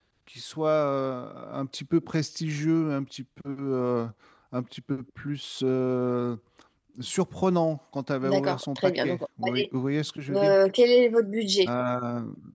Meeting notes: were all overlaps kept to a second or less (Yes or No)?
No